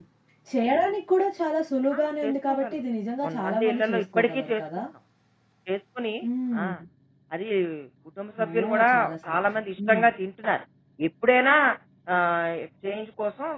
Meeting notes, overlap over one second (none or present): present